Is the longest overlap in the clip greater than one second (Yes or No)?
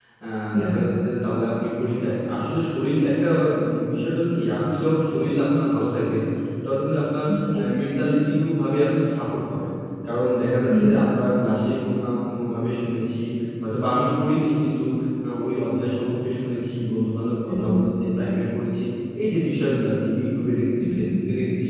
No